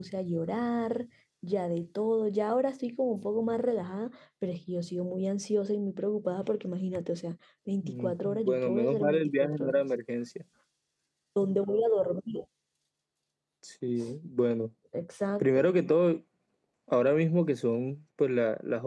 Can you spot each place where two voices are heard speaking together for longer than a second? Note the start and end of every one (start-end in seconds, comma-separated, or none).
7.8-9.9